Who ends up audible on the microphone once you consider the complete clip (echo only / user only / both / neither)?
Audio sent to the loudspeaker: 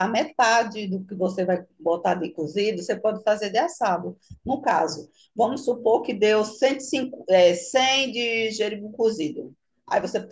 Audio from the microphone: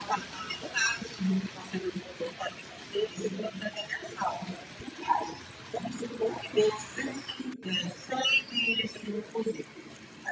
echo only